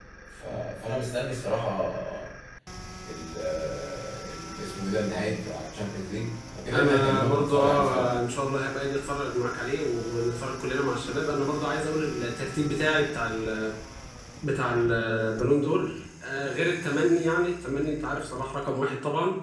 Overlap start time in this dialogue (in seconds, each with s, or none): 6.7 s